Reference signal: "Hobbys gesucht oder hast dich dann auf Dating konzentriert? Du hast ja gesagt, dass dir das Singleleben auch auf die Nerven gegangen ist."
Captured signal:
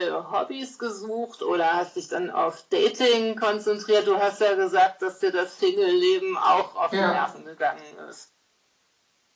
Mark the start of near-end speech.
7 s

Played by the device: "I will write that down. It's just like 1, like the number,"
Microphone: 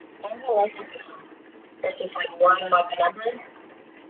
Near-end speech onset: none

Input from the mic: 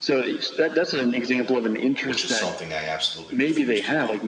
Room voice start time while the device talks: 2 s

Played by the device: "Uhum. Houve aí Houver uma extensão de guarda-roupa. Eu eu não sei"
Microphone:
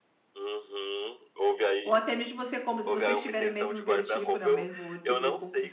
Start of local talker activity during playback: 2 s

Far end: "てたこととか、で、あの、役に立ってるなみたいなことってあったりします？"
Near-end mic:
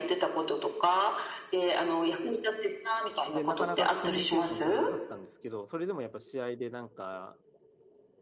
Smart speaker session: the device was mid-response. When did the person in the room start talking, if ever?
3 s

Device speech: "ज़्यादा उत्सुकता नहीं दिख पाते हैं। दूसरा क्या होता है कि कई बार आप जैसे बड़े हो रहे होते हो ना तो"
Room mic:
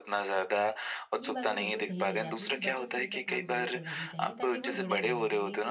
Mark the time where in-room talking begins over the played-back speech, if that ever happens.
1 s

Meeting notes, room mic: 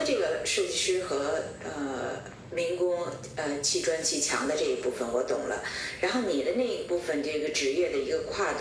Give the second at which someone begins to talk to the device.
none

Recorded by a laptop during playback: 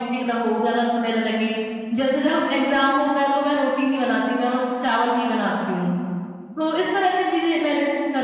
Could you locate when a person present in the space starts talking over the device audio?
none

